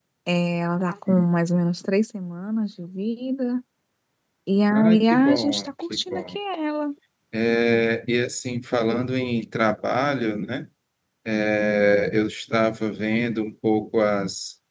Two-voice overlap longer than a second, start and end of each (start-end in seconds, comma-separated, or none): 4.7-6.4